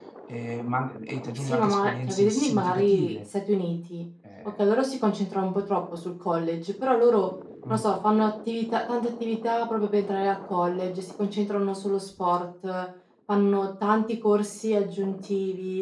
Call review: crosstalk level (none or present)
present